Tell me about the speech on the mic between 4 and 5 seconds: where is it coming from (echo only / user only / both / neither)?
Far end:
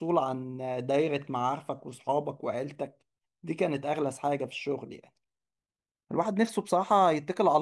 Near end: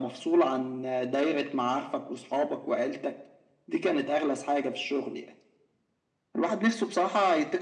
echo only